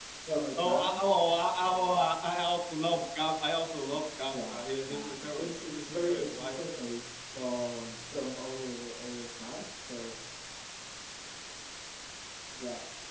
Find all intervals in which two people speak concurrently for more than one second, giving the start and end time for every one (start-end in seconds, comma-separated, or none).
4.3-6.8